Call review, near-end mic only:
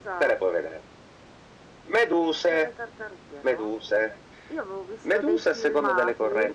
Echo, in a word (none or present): present